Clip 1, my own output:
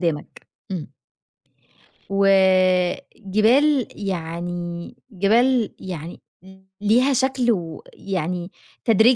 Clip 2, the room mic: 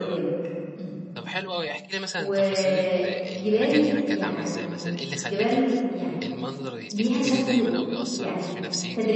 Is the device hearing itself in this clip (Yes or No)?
Yes